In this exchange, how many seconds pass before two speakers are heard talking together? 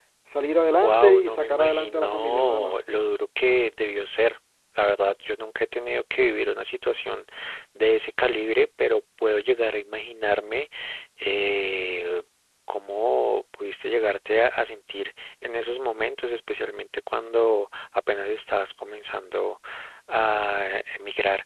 1 s

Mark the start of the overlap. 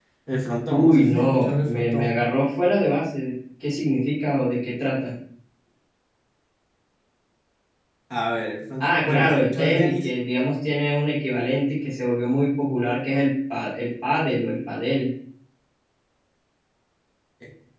1 s

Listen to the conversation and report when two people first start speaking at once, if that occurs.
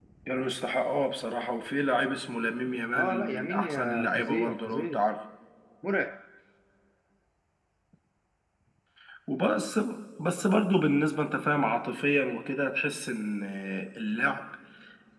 3 s

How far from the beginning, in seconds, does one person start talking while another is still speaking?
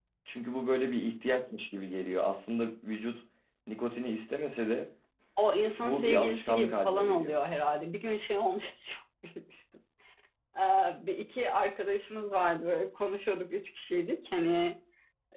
6 s

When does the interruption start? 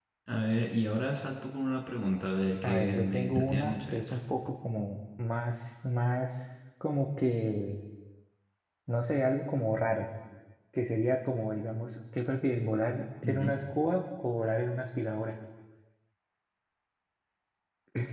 3 s

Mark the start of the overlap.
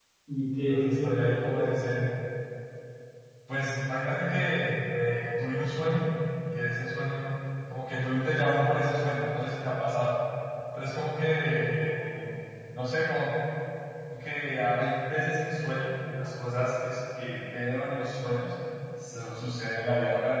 1 s

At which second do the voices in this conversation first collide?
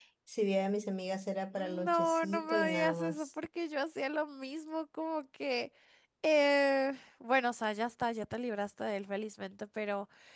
2 s

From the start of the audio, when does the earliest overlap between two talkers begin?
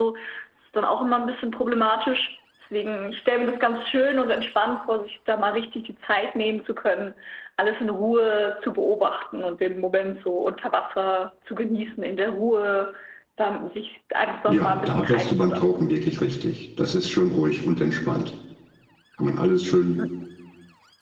14 s

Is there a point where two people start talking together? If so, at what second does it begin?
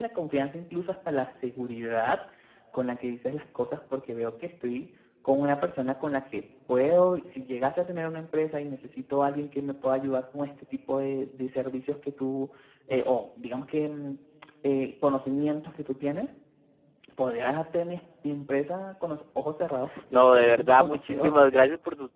20 s

